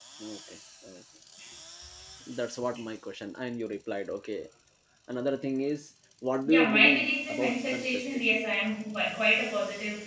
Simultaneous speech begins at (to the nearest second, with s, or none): 6 s